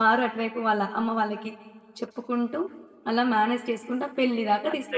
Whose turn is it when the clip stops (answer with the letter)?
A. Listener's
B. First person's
A